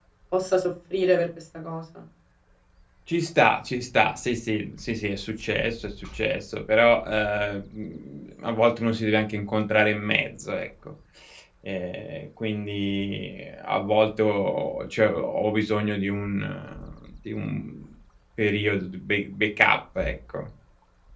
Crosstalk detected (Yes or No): No